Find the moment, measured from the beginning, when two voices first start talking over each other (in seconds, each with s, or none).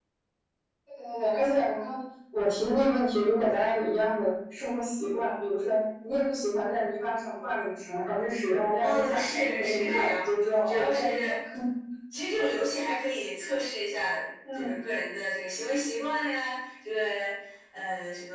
8.8 s